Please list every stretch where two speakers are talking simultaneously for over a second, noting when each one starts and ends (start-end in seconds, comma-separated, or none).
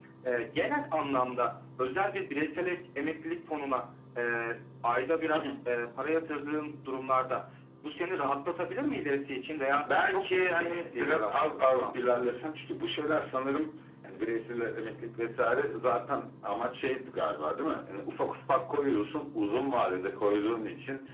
9.8-11.9